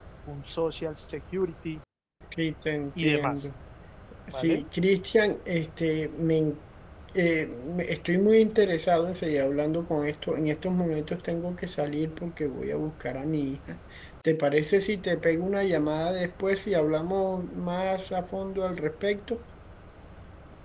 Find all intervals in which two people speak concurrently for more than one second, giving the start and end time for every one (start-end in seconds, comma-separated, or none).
none